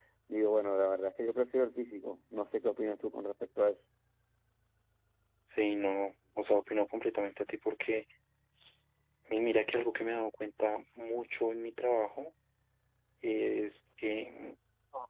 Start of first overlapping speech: none

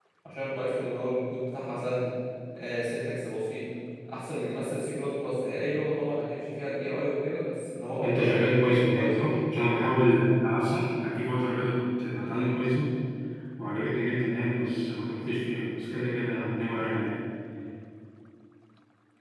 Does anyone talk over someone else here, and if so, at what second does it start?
8.0 s

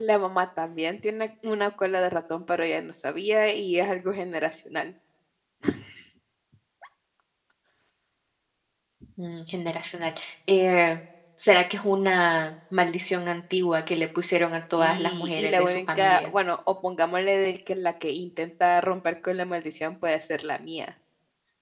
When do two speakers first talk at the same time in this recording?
14.8 s

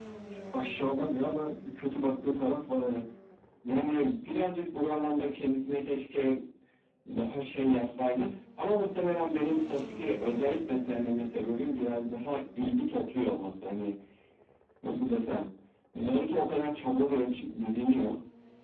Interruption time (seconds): none

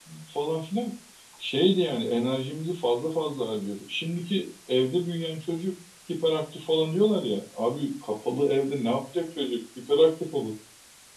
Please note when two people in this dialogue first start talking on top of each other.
none

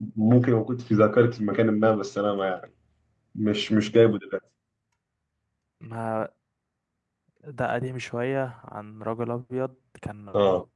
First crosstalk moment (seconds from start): none

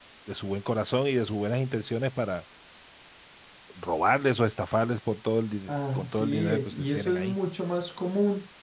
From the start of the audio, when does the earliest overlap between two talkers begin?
5.7 s

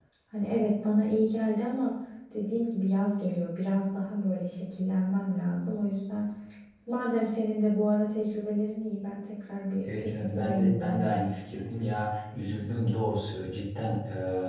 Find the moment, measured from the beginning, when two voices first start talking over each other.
9.8 s

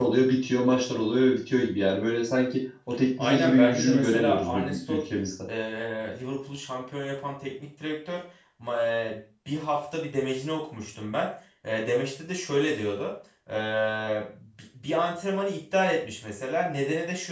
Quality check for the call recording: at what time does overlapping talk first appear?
3.2 s

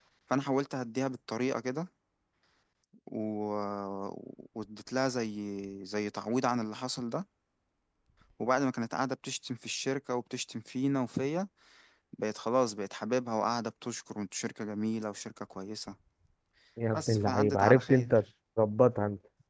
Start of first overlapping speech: 16.9 s

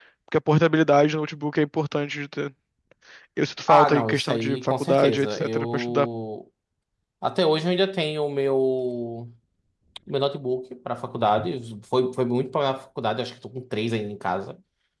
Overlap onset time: 3.7 s

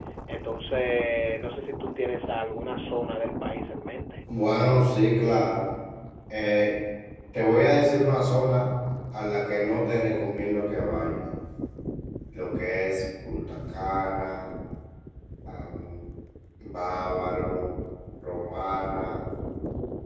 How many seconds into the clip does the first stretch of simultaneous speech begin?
none

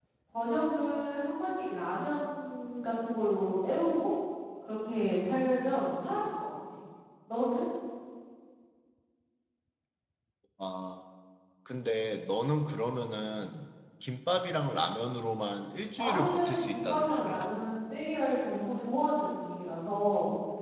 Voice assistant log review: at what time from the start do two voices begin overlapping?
16.0 s

